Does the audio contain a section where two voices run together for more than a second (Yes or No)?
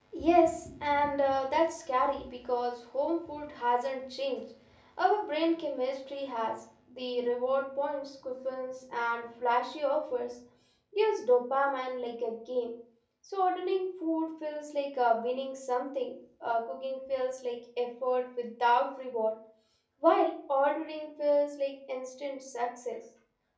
No